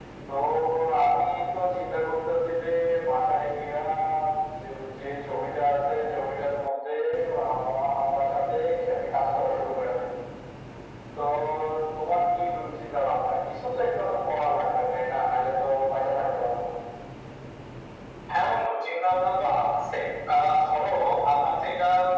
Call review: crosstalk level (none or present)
none